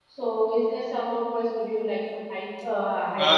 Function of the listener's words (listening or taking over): taking over